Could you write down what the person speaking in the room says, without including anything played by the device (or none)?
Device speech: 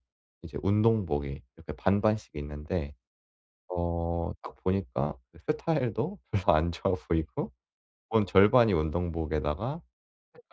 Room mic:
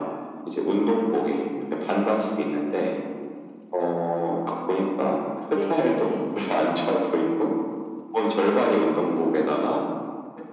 네네.